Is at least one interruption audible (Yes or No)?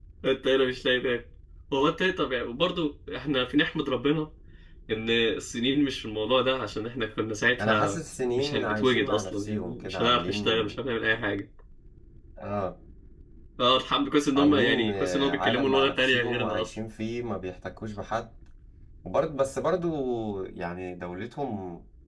Yes